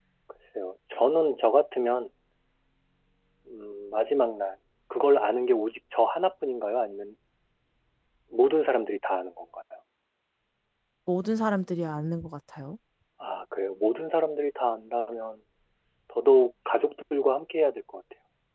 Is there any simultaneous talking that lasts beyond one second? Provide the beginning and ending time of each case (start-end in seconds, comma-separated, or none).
none